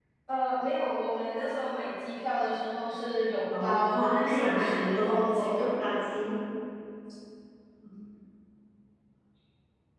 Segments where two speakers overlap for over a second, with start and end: 3.6-5.7

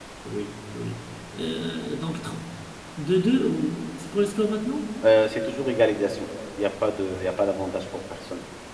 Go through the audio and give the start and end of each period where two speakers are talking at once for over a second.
none

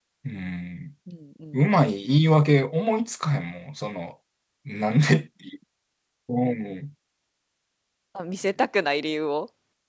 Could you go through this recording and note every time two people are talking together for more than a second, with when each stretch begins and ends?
none

